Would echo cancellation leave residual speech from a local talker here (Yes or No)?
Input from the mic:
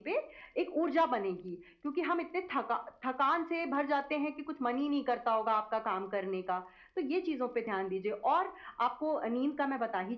No